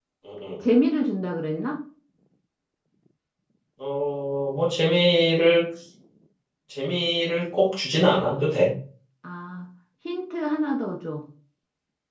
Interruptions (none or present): none